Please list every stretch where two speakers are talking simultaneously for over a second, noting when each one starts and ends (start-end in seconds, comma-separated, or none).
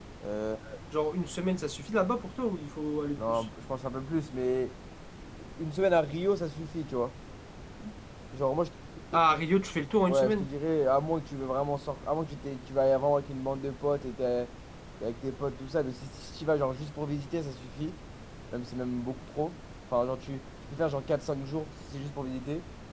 none